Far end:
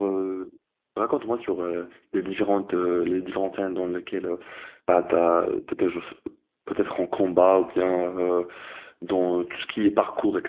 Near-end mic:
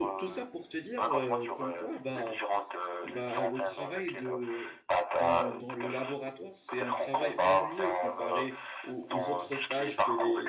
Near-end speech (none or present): present